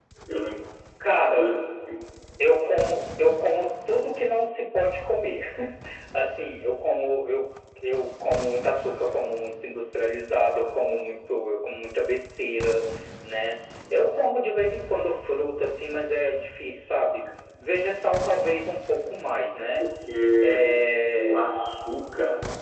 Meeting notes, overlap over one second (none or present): none